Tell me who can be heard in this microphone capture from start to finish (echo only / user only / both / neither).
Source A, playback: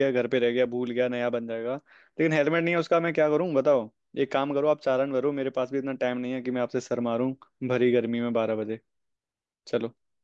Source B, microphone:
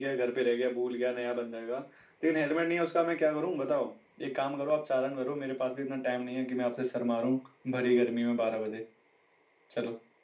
echo only